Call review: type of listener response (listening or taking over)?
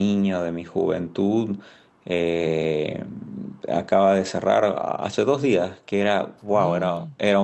listening